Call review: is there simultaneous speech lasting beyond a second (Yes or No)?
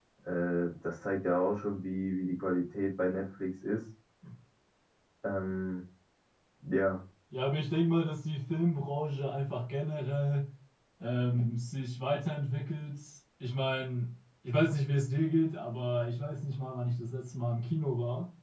No